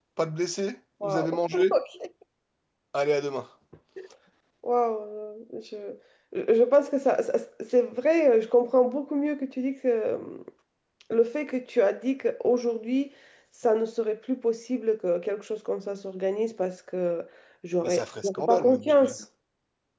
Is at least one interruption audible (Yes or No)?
Yes